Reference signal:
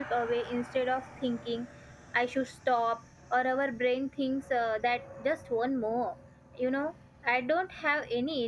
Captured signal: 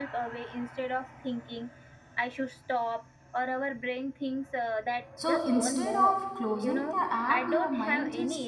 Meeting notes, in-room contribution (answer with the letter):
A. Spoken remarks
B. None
A